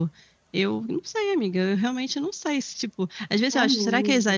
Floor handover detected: No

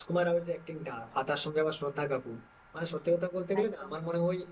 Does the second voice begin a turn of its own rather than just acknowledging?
No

